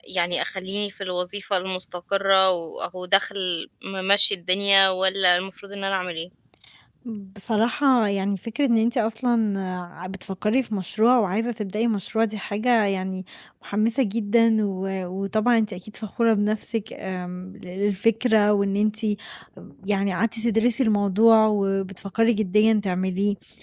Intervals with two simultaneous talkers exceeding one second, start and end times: none

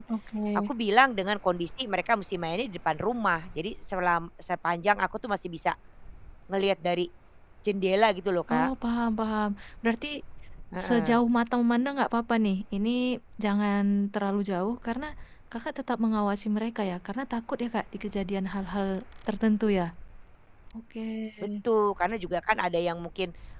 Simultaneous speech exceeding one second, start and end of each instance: none

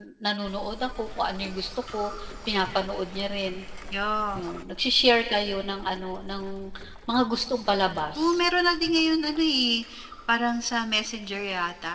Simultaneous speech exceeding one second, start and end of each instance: none

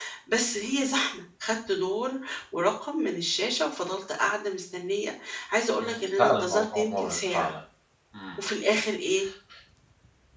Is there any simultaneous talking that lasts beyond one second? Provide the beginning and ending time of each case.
5.8-7.5

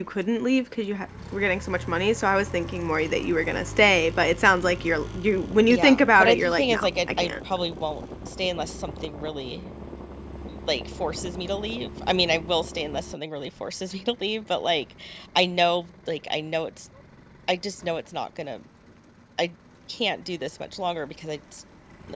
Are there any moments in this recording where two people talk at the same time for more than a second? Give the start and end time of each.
5.7-7.3

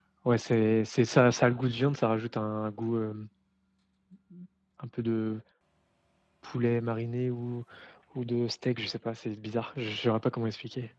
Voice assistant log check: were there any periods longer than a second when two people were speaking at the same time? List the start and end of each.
none

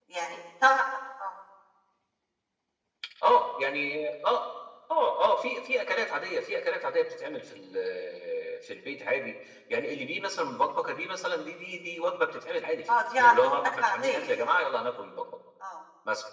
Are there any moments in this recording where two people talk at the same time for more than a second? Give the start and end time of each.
12.9-14.5

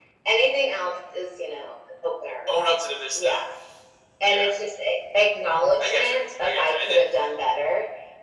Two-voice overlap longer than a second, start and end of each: 5.8-7.0

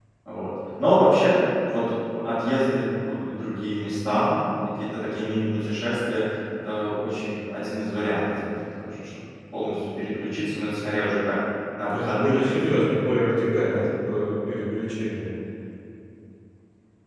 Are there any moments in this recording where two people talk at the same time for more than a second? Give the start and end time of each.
11.9-13.2

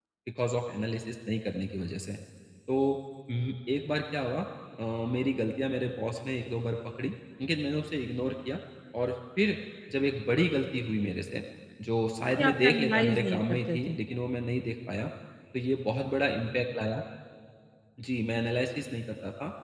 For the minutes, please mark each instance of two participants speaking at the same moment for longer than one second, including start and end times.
12.4-14.0

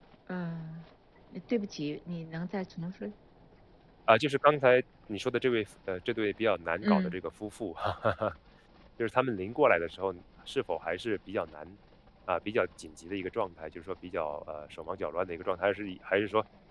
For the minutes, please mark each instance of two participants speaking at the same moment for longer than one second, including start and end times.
none

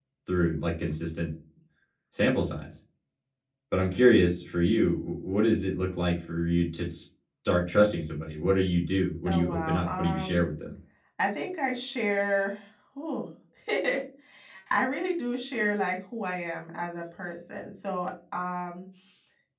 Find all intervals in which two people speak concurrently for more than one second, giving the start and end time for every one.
9.3-10.5

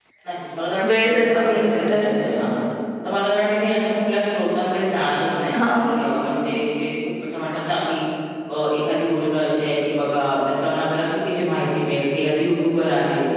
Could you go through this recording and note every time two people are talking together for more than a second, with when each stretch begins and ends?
0.9-2.1

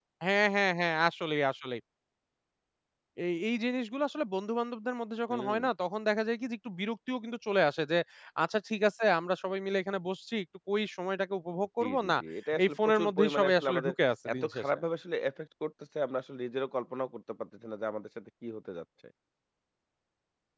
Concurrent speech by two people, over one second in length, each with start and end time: 12.6-13.9

